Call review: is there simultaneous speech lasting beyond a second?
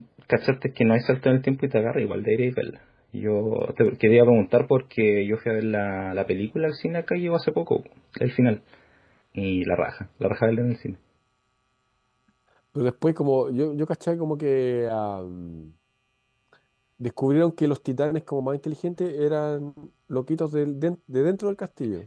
No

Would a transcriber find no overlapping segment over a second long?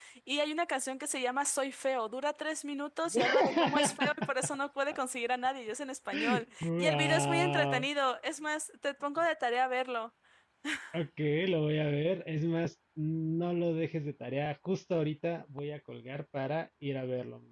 No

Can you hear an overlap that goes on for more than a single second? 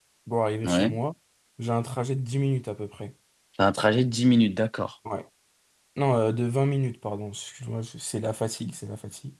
No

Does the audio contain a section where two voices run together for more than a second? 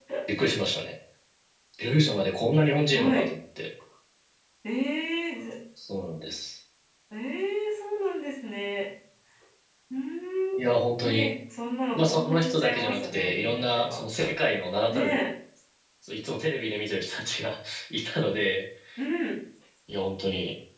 Yes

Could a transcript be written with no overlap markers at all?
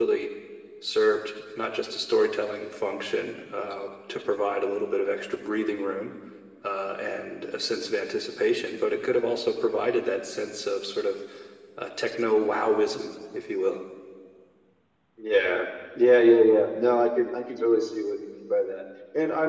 Yes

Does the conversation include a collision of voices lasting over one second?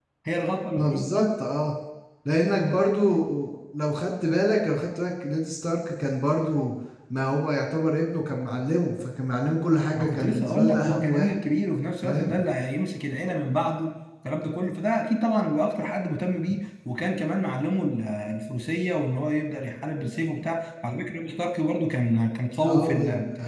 Yes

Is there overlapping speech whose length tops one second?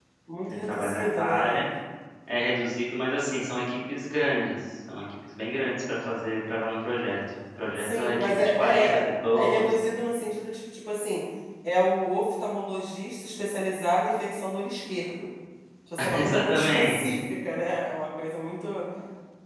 Yes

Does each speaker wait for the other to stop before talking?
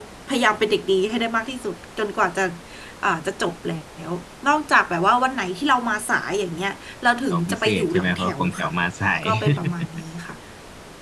No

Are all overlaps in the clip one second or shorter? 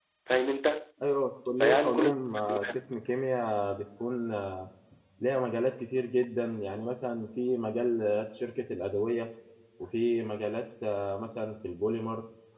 No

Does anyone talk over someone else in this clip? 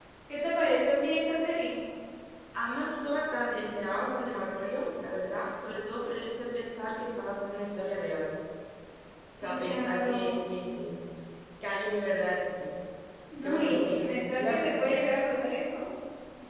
Yes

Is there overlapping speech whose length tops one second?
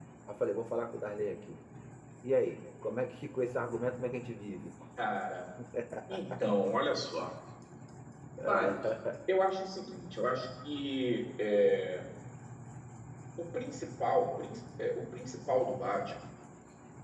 No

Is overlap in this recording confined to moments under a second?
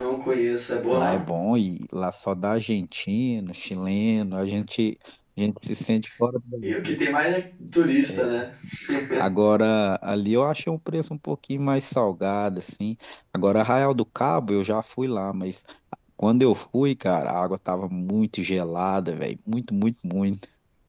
Yes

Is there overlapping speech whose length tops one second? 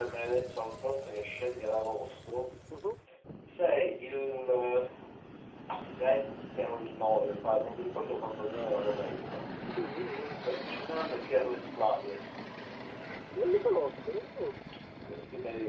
No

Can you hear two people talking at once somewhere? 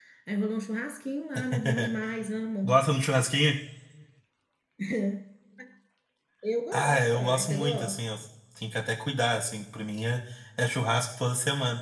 Yes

